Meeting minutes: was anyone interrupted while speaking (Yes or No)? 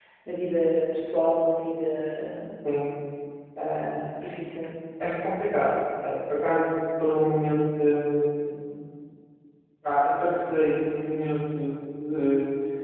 No